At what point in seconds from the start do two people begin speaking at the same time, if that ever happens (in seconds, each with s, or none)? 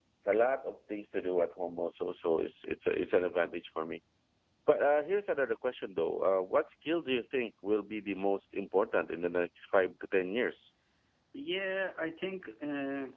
none